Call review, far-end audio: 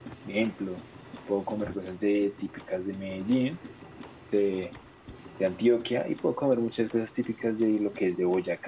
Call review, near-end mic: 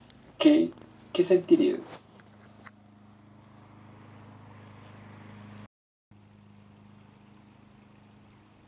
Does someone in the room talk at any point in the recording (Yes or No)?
Yes